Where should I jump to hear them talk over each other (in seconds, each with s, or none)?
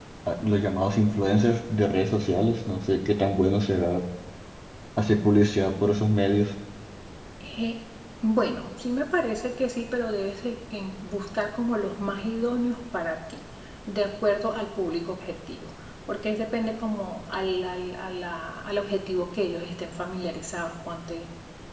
none